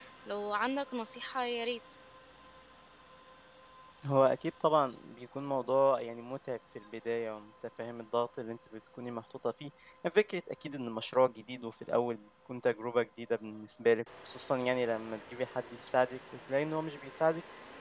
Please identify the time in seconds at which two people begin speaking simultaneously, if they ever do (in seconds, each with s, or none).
none